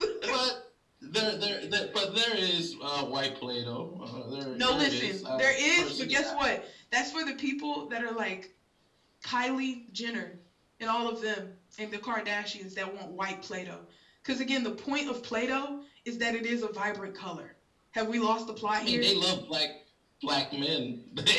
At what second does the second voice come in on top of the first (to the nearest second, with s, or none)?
5 s